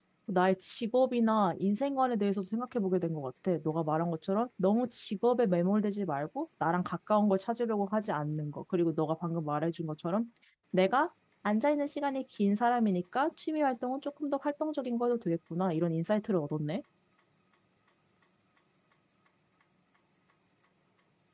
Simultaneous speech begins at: none

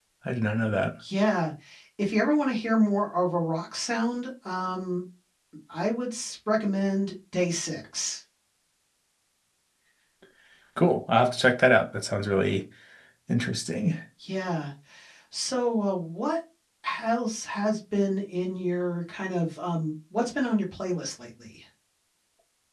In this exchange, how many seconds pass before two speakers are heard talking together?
none

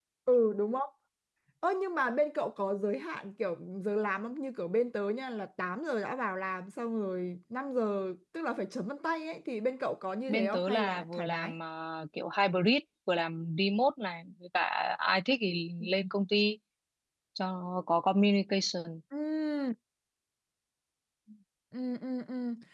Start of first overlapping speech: 10.3 s

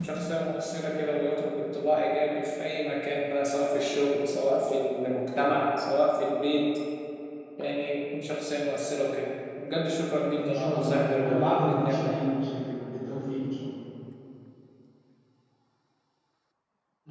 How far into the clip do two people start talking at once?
10.3 s

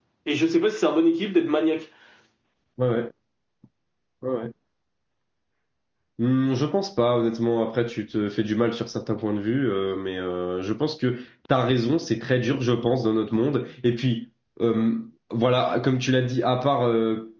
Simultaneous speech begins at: none

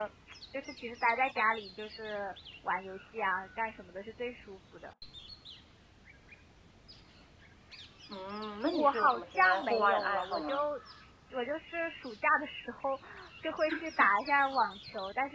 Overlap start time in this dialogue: 8.7 s

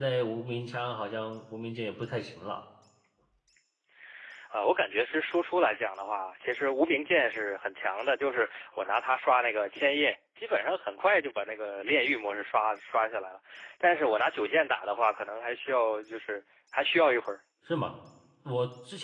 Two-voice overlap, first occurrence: none

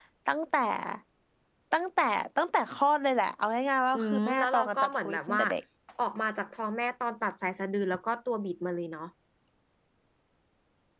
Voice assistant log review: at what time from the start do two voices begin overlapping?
3.9 s

